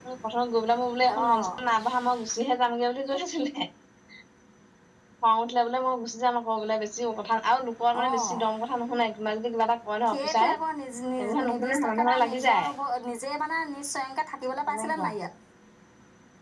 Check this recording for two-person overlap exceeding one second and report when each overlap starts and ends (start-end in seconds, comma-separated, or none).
11.2-12.7